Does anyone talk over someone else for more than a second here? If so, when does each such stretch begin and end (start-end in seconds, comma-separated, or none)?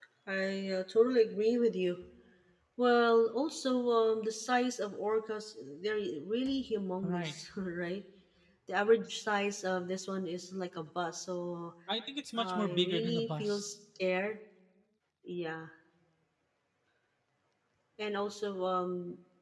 12.4-13.7